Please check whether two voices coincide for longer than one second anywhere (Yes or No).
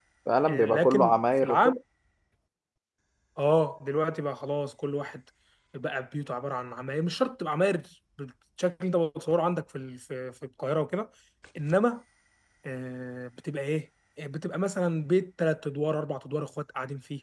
Yes